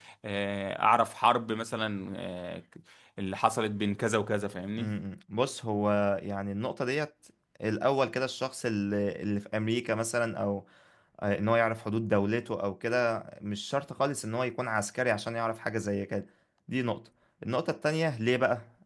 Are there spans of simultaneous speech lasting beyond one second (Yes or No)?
No